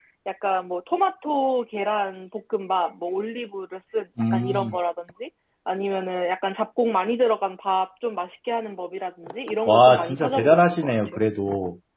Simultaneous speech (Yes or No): Yes